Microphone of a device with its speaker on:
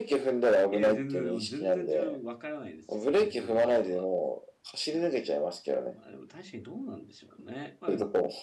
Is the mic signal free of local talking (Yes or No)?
No